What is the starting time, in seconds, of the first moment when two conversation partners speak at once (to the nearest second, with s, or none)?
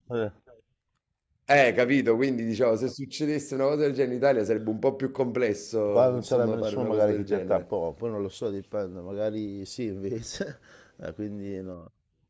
6 s